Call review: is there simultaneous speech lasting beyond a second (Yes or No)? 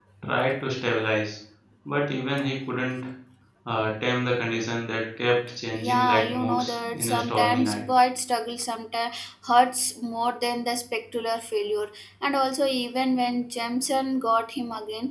Yes